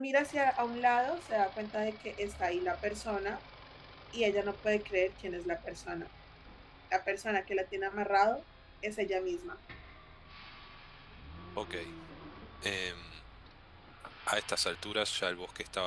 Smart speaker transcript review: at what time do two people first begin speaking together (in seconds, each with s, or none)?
none